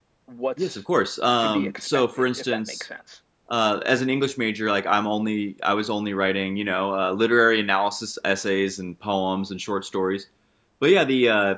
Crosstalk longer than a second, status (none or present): present